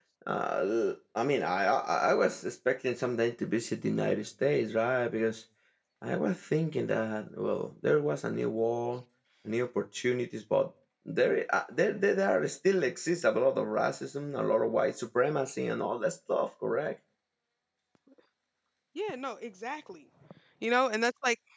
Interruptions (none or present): none